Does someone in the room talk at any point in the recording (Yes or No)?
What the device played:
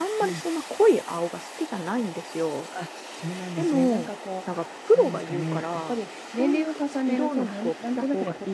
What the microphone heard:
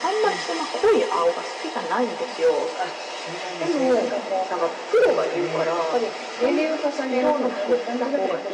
No